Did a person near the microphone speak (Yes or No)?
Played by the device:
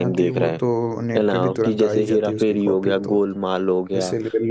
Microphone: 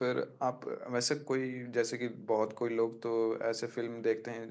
Yes